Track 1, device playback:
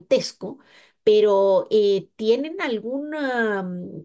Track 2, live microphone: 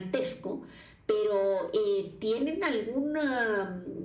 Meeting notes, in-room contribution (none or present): none